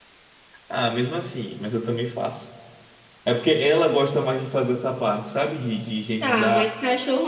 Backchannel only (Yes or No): No